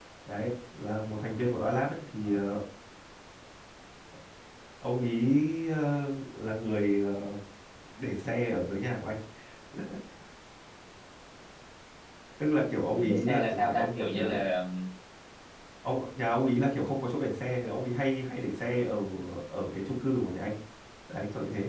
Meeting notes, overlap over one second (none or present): present